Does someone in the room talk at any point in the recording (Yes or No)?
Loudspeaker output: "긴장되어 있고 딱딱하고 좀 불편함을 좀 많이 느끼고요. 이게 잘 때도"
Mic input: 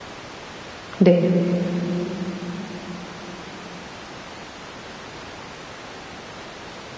Yes